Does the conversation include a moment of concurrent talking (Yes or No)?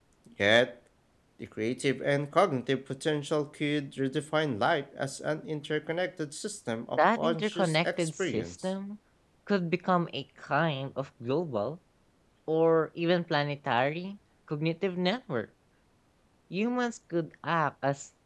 Yes